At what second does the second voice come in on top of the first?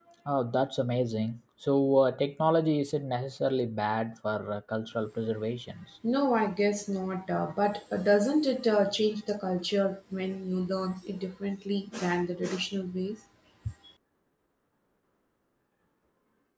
none

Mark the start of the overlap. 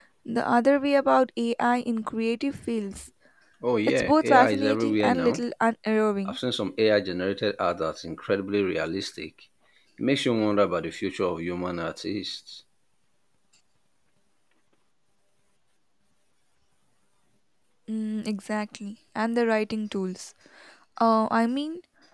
3.9 s

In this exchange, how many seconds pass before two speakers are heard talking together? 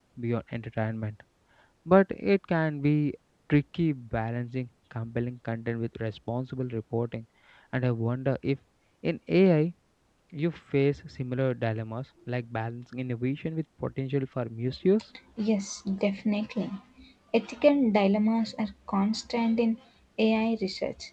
none

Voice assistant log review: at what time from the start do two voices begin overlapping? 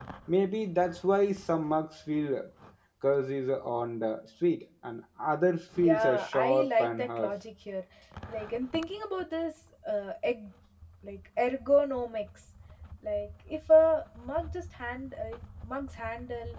5.8 s

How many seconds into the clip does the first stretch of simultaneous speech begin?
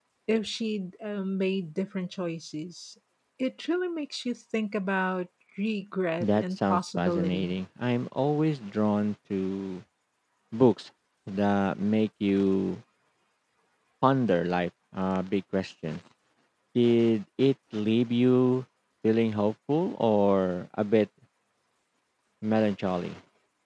6.2 s

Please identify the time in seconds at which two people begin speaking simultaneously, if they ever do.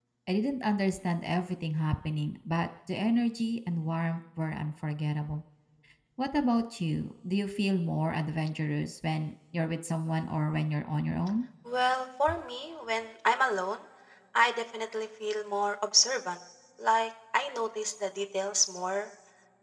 none

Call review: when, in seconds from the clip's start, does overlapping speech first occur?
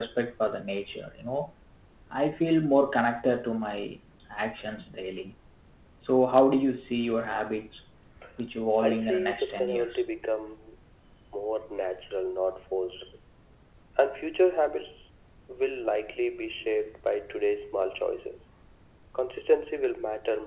8.8 s

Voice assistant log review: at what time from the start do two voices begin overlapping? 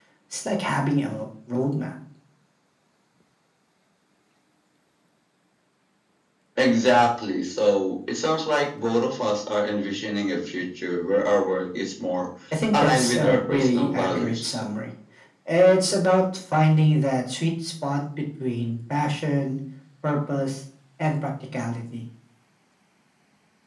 12.7 s

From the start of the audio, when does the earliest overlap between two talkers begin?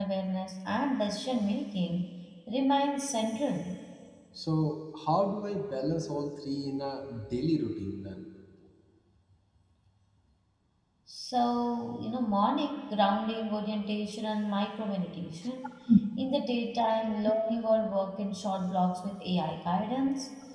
none

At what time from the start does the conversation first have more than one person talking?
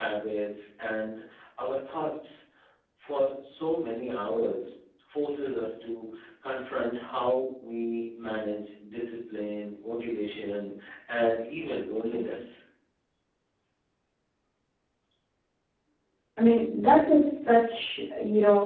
none

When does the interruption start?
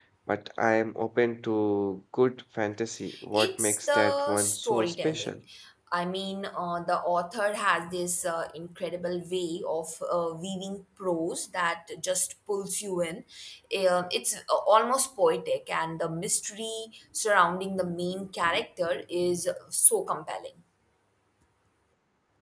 3.3 s

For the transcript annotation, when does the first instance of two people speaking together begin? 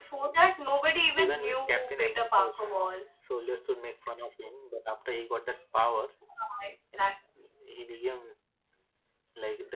1.2 s

